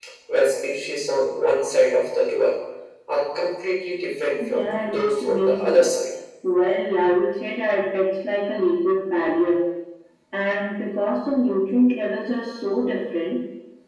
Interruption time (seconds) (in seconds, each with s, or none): 4.4 s